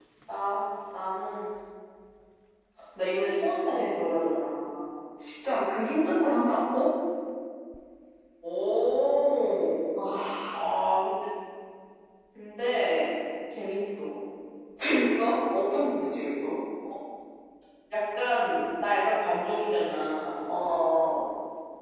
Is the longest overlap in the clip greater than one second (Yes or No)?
No